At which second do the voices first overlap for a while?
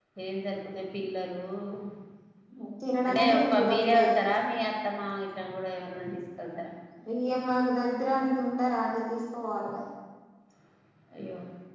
3.1 s

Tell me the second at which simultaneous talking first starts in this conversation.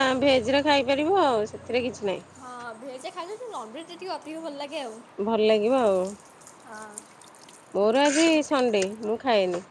none

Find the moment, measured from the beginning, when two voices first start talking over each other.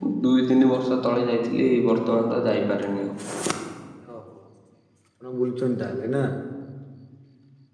none

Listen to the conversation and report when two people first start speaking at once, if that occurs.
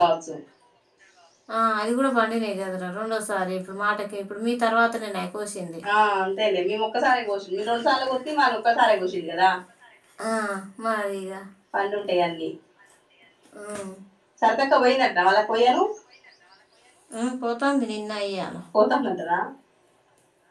none

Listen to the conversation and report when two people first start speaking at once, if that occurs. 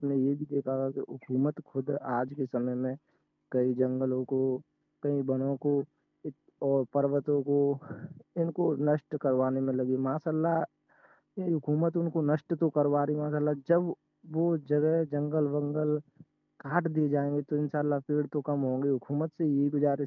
none

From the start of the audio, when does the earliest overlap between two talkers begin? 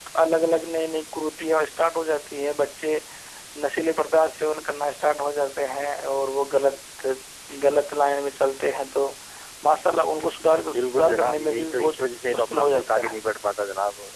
10.7 s

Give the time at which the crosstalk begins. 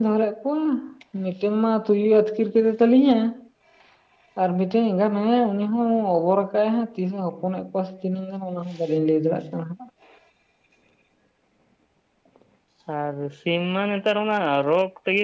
none

